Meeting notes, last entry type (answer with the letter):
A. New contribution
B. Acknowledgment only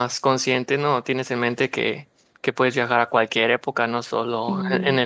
B